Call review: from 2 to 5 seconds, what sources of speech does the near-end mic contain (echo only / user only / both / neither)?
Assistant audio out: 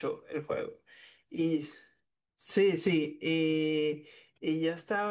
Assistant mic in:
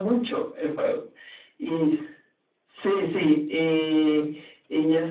echo only